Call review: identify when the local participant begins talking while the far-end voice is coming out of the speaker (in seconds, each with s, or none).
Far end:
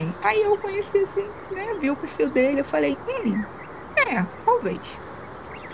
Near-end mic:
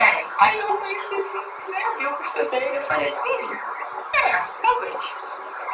none